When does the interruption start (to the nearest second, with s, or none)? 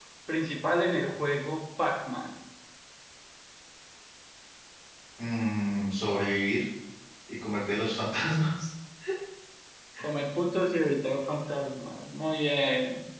none